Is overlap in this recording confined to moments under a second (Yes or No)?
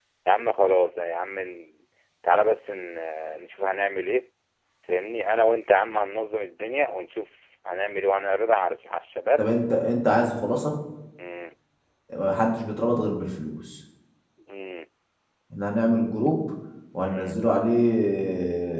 Yes